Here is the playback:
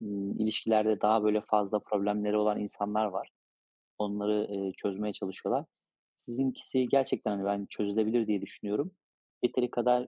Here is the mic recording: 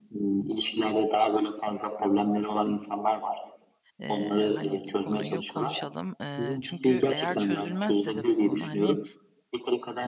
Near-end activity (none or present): present